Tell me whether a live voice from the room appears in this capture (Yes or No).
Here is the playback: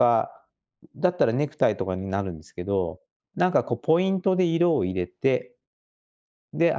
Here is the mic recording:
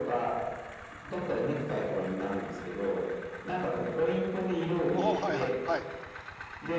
Yes